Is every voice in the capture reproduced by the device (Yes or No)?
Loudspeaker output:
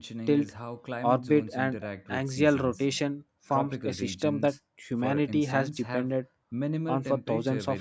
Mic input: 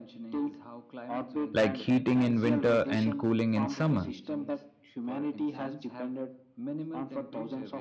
No